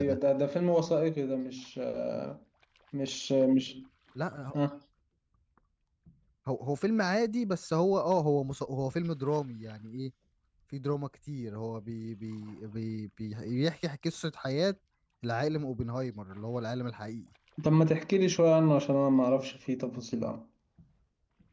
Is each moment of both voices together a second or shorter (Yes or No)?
Yes